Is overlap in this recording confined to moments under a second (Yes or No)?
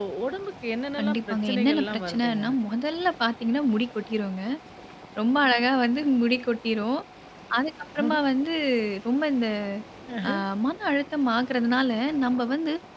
No